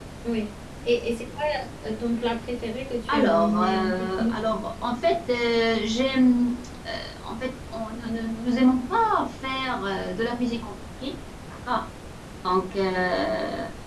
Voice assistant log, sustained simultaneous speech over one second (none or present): present